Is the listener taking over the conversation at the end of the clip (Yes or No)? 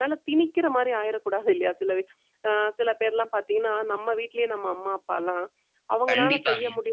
No